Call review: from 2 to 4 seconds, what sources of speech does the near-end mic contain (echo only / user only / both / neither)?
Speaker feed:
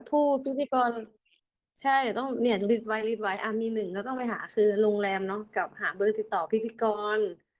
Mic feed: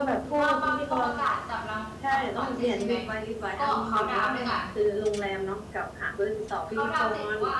both